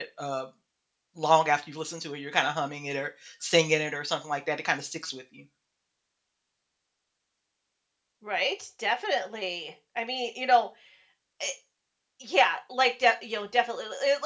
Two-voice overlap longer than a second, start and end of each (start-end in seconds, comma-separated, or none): none